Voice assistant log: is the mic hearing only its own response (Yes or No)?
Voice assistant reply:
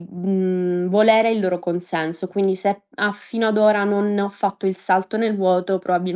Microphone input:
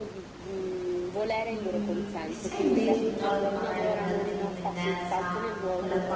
No